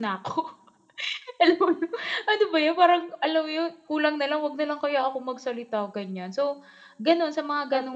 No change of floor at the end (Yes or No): Yes